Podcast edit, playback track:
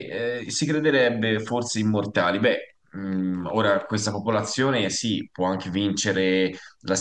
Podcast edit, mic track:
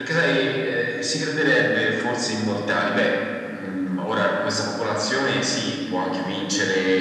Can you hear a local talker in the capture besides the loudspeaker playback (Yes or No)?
No